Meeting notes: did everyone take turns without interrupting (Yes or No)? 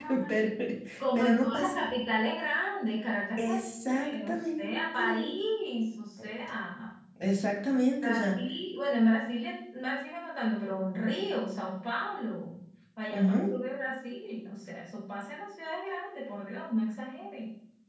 No